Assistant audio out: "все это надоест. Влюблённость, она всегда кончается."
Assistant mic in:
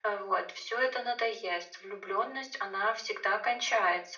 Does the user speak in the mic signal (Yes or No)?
No